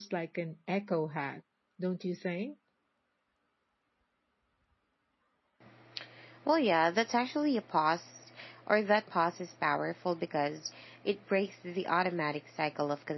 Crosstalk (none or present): none